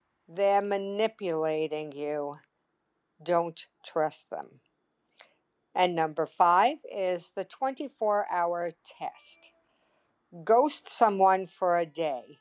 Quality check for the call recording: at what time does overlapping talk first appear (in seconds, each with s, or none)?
none